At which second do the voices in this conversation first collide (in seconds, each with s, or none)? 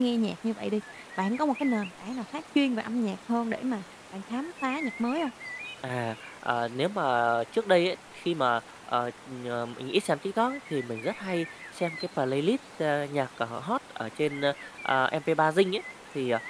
none